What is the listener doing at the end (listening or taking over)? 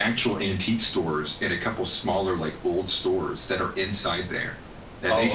listening